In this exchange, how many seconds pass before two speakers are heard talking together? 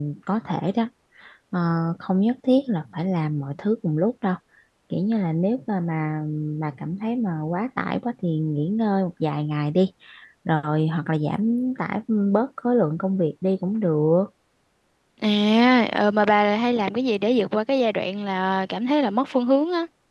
none

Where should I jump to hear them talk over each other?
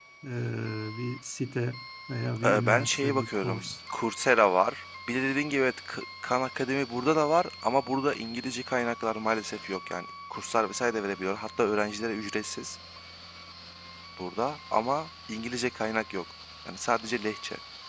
2 s

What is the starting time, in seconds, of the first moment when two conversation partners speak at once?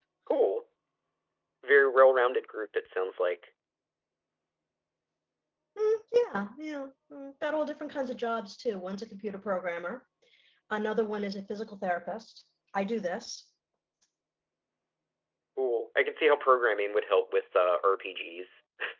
none

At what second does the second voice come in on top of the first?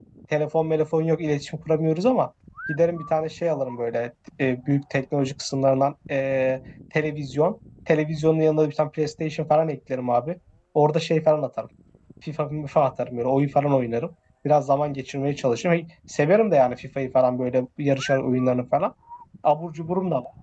none

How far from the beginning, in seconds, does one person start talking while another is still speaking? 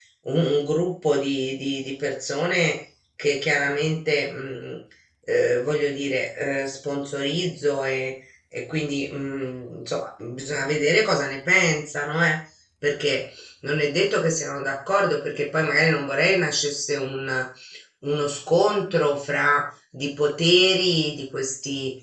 none

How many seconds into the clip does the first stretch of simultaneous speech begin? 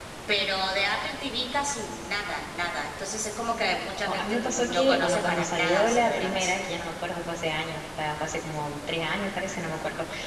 4 s

